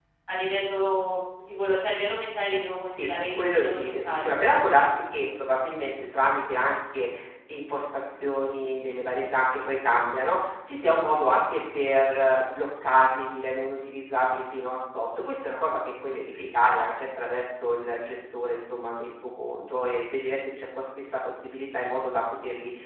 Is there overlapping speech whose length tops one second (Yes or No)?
Yes